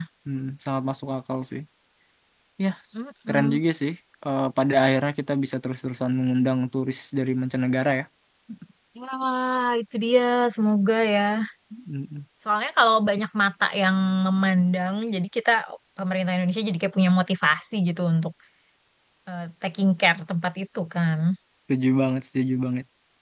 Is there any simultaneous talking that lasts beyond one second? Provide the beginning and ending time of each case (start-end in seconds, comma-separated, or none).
none